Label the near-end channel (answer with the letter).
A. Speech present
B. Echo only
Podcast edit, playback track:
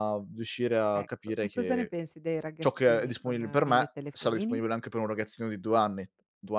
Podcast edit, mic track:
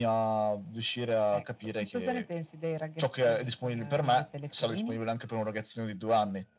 B